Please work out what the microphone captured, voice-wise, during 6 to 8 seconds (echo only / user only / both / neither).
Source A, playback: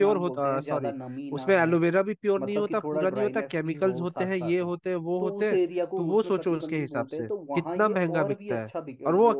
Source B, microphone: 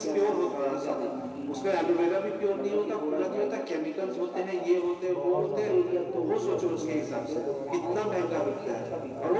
both